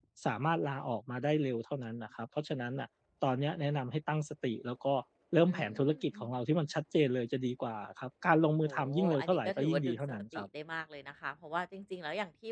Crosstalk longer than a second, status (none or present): present